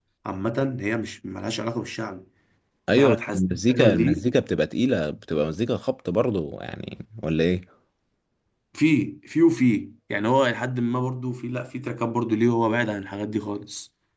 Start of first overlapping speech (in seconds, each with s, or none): 3.0 s